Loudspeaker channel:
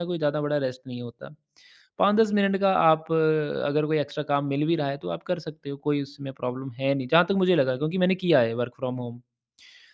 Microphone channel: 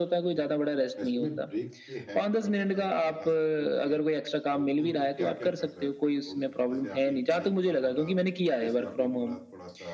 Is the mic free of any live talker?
No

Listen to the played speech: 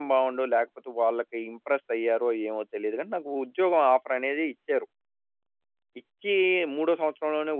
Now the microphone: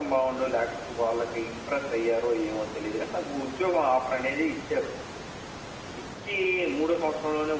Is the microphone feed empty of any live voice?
Yes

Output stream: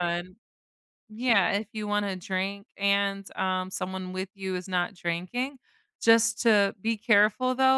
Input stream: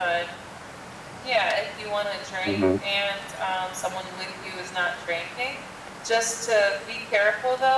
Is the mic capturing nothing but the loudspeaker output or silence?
No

